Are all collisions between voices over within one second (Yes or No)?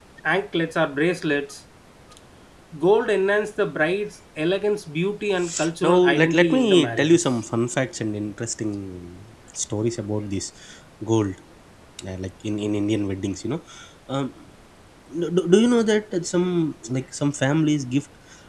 No